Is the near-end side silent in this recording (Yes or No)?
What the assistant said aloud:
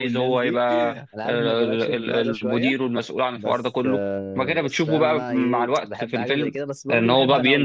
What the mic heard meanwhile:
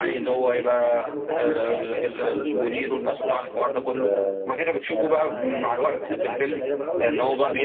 No